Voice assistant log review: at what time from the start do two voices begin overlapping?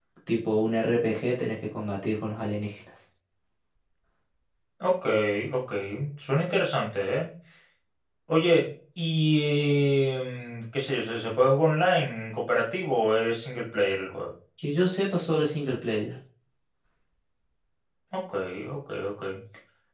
none

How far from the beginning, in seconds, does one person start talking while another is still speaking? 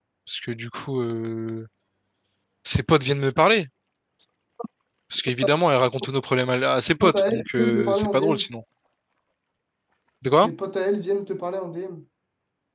7.0 s

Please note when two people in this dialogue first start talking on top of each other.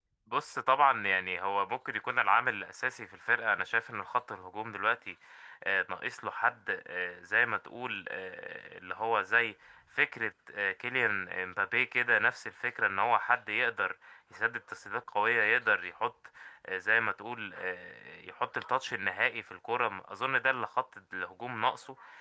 none

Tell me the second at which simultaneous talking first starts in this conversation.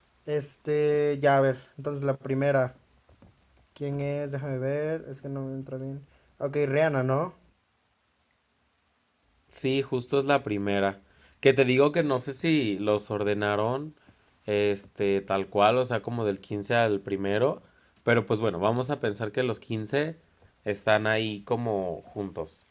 none

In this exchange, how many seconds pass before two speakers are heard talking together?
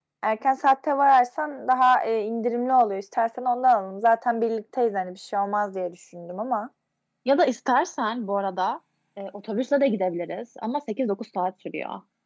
none

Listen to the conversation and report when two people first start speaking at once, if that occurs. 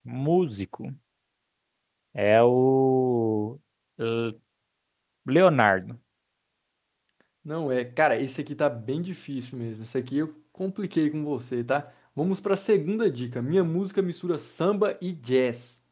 none

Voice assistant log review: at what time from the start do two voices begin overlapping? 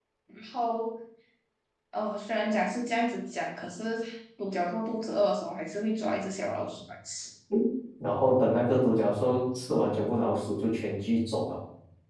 none

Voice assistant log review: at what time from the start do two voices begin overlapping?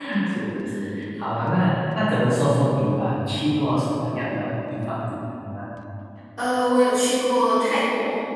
none

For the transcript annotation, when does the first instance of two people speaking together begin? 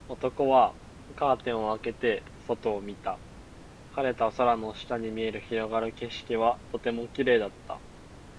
none

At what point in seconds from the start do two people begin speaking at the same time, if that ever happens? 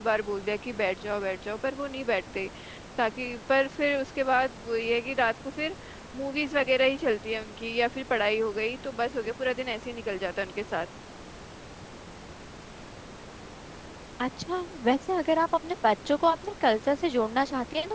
none

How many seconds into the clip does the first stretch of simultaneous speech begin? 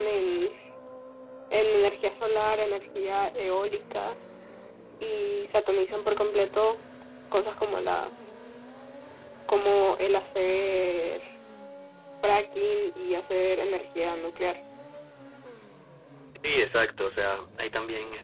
none

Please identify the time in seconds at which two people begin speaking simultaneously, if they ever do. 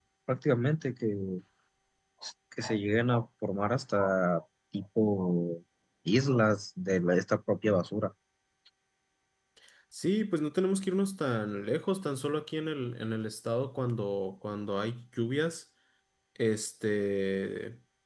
none

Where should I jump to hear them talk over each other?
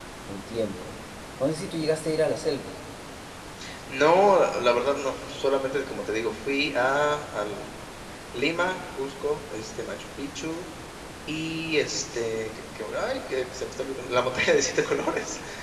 none

